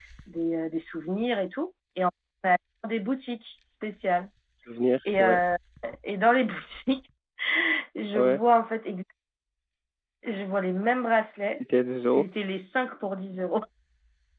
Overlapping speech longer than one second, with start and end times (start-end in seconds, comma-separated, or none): none